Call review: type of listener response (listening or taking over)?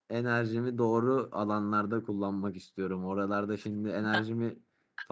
listening